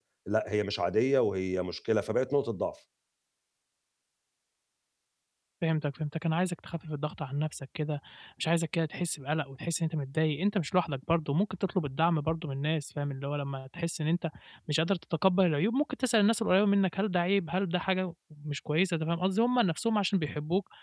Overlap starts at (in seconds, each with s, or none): none